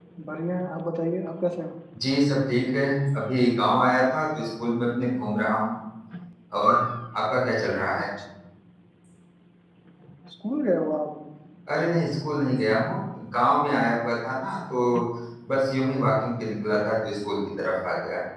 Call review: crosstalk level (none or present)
none